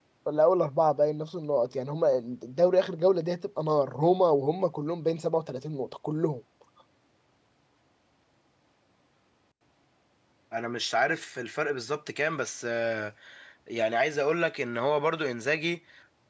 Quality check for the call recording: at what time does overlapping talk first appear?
none

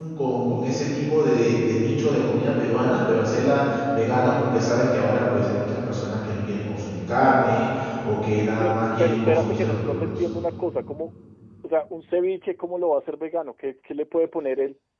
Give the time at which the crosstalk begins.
8.6 s

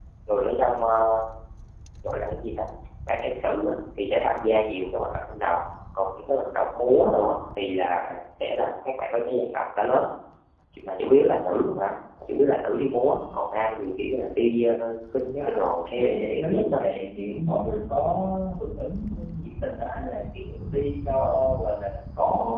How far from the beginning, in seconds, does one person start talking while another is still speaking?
15.4 s

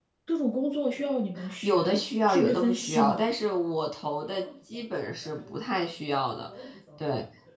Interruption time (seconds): 1.4 s

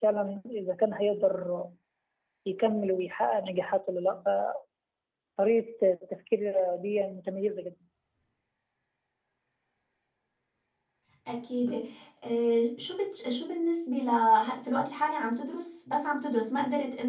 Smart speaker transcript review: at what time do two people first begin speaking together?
none

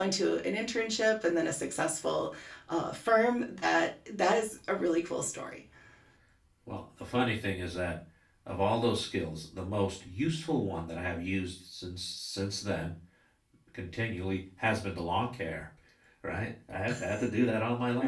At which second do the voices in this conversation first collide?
none

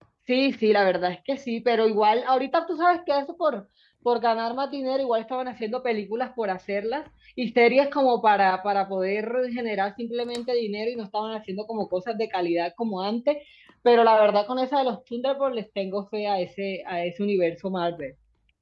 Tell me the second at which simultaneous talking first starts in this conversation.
none

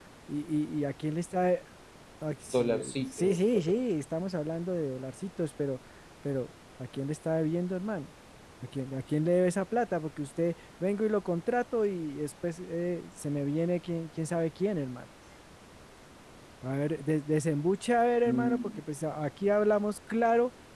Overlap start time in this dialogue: 2.5 s

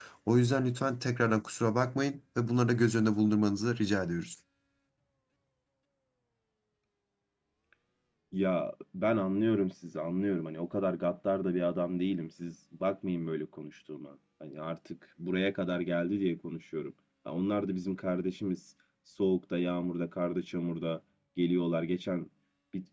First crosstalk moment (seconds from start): none

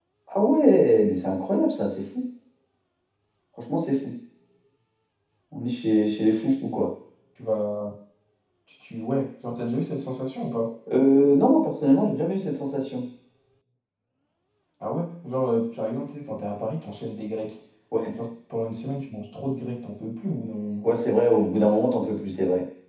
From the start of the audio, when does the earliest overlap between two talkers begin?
none

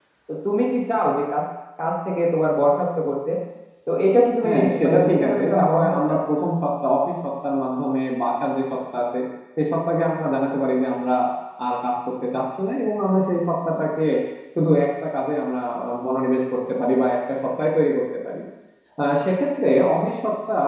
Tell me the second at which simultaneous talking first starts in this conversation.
4.4 s

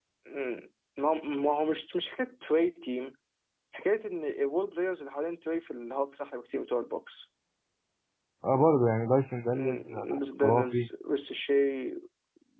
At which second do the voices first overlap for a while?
9.5 s

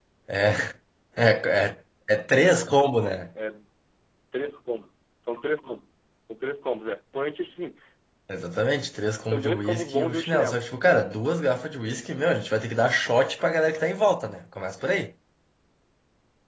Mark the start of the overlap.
9.2 s

